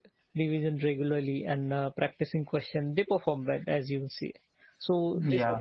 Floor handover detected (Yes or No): No